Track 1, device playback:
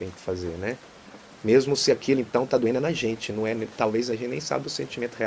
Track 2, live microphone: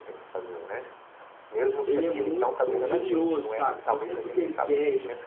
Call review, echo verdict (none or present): present